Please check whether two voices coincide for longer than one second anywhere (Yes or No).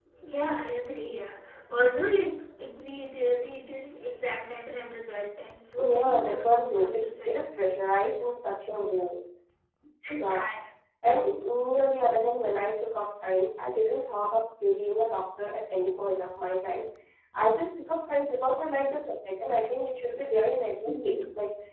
Yes